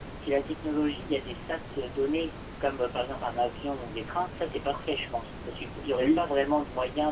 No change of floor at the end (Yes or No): Yes